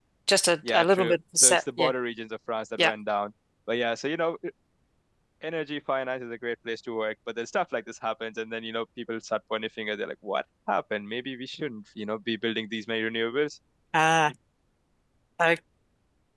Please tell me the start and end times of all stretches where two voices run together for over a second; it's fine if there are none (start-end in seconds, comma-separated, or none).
0.7-1.9